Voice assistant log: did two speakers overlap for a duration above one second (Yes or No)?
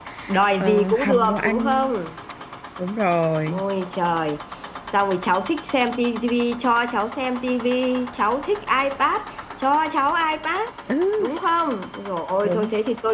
Yes